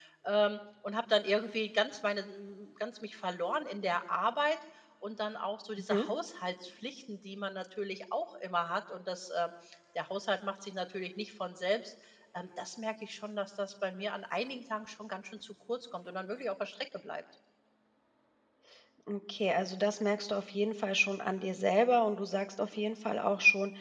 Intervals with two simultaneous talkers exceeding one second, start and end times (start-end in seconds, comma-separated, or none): none